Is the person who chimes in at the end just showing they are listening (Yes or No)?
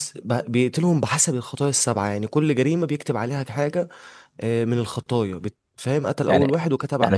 No